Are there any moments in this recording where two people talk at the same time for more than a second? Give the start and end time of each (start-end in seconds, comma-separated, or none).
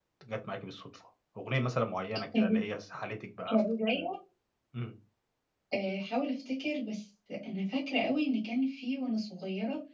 none